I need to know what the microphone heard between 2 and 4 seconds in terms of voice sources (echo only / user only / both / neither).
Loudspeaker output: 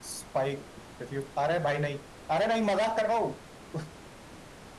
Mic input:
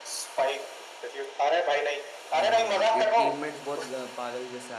both